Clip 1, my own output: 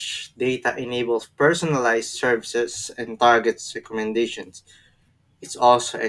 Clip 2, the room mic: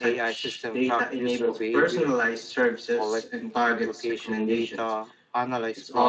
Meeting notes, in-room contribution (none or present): present